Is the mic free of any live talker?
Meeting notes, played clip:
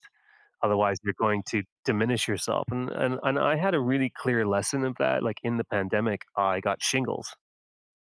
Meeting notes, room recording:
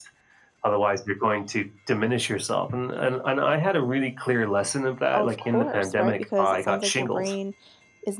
No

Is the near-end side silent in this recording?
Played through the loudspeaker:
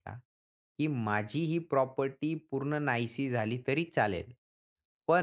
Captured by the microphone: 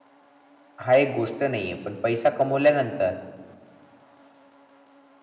No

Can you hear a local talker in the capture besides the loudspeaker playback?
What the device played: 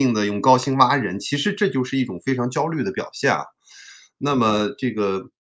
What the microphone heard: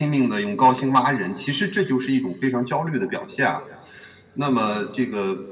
No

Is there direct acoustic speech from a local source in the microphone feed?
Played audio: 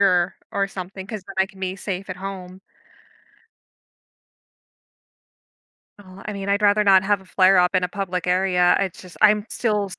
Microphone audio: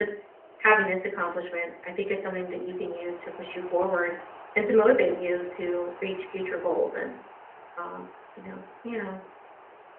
Yes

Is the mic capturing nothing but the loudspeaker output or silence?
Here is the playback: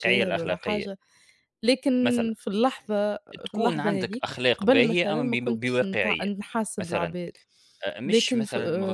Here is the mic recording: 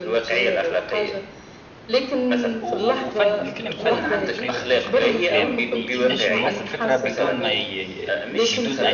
No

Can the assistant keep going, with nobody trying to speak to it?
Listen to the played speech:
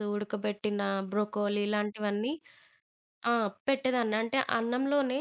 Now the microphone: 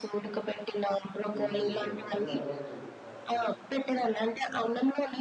No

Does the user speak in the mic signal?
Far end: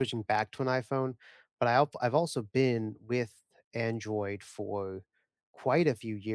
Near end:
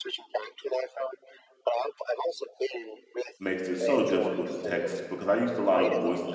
Yes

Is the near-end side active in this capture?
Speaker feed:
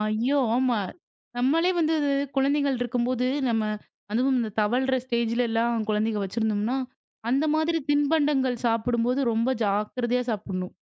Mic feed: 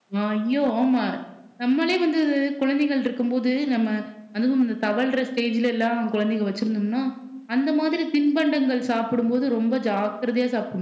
No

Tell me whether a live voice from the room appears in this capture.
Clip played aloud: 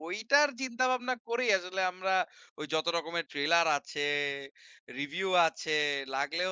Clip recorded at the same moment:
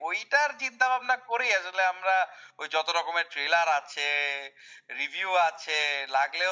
No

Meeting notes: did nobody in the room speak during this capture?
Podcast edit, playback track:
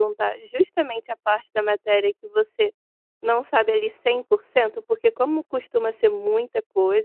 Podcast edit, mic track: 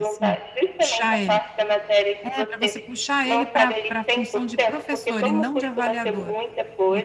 No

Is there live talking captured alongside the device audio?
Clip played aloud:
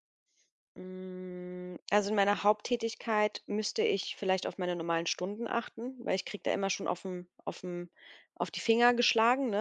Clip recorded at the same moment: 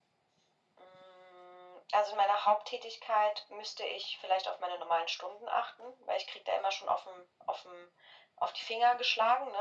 No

